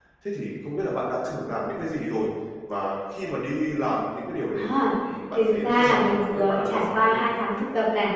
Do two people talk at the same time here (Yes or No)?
Yes